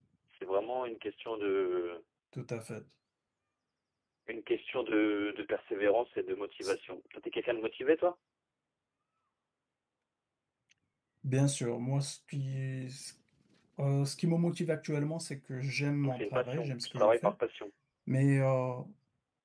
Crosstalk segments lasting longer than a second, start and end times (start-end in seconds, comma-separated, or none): 16.0-17.3